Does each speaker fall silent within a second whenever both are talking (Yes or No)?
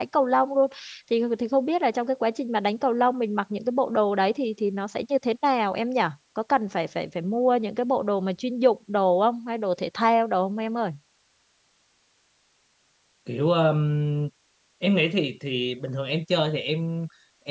Yes